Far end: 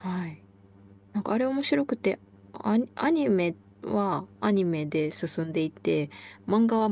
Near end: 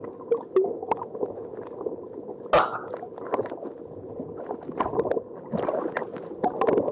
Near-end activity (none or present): present